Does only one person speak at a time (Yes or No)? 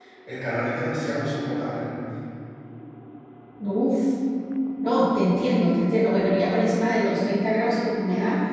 Yes